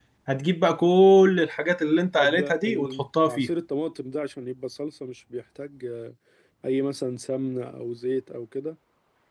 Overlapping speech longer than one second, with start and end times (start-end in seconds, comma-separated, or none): 2.2-3.5